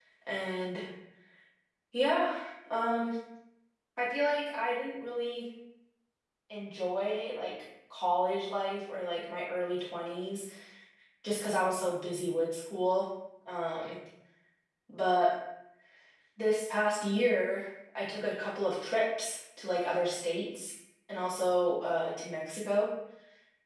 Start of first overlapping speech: none

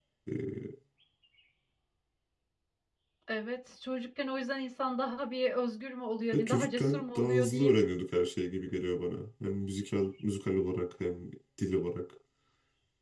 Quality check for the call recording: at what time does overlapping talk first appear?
6.3 s

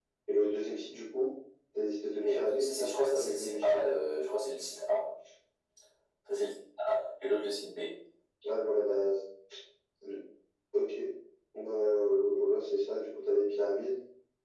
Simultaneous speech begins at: 2.1 s

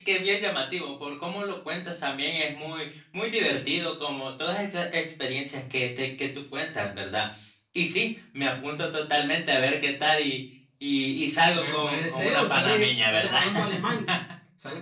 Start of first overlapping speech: 11.5 s

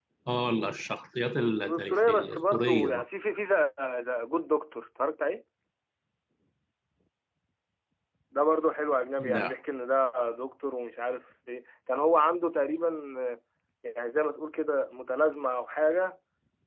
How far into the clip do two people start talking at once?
1.7 s

